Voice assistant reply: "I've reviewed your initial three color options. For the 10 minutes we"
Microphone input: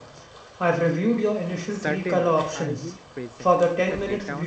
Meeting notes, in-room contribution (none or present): present